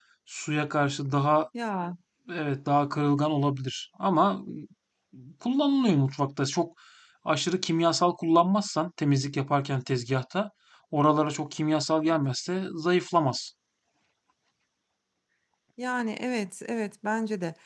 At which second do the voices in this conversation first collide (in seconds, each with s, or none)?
none